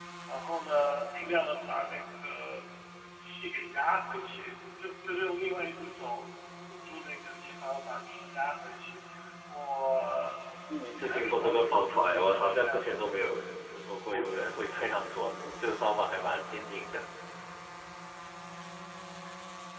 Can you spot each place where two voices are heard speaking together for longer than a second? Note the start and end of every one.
10.9-13.1

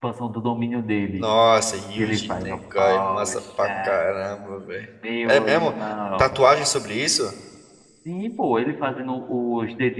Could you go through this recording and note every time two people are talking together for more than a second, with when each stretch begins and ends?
2.0-4.0

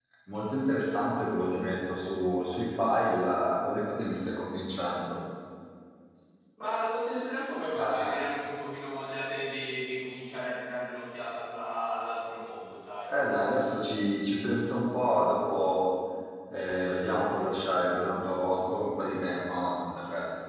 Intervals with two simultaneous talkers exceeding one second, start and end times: none

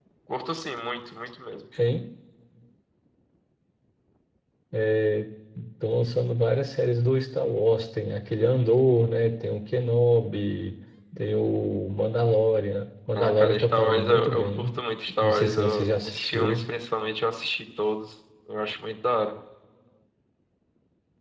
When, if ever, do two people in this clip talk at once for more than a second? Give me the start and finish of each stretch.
13.2-14.7, 15.2-16.6

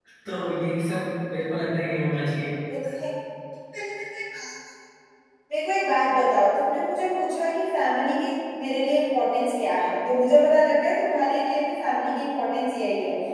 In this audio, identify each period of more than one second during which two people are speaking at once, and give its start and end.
none

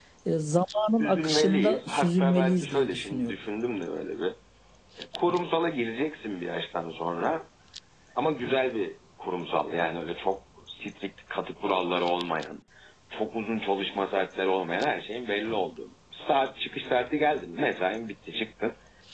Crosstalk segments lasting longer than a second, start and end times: 1.0-3.4

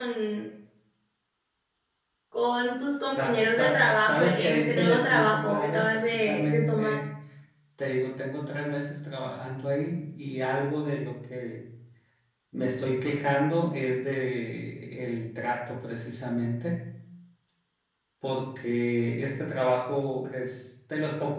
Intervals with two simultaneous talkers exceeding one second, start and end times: 3.2-7.0

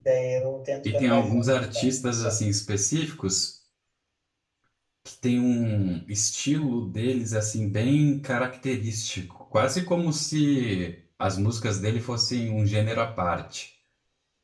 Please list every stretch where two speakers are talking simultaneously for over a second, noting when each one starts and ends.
0.8-2.4

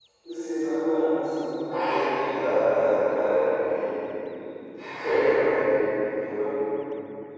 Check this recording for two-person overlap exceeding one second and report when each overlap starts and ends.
none

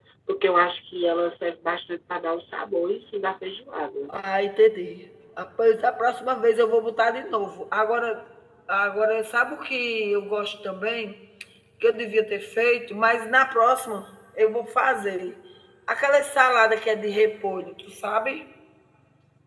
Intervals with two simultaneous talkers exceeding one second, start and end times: none

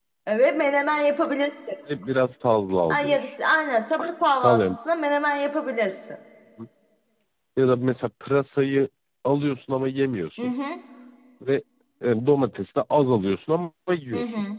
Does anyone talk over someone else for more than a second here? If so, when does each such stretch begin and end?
none

